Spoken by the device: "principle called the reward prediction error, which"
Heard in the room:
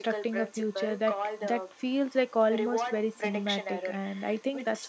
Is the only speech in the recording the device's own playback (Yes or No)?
No